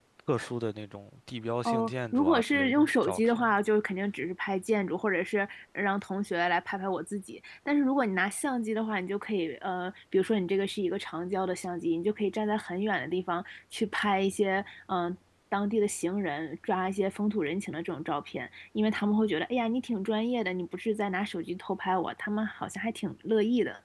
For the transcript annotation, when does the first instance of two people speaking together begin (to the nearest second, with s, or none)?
2 s